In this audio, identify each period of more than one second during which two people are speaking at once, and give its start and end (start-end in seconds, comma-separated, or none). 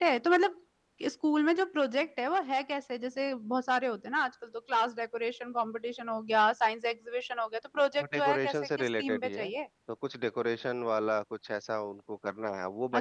8.0-9.5